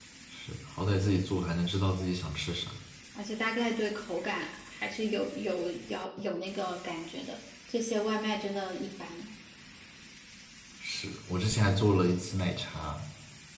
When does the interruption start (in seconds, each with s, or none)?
none